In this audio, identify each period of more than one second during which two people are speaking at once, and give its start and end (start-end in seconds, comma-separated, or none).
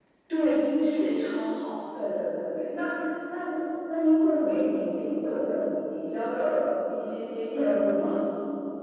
none